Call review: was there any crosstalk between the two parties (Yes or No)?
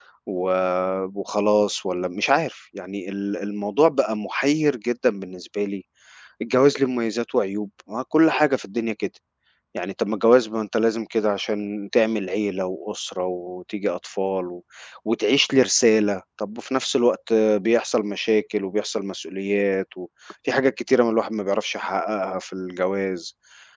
No